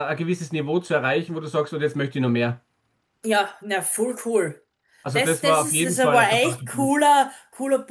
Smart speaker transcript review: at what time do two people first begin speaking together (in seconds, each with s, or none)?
5.1 s